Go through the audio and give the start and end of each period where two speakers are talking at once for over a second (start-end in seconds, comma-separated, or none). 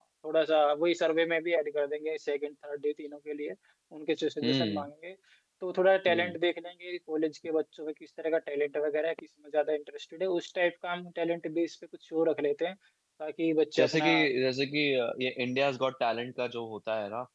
none